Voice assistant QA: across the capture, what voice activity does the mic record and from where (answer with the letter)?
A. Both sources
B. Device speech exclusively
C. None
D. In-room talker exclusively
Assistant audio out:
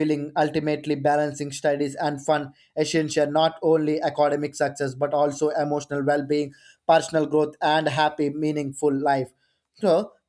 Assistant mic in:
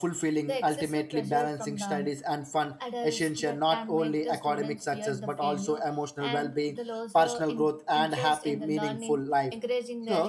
A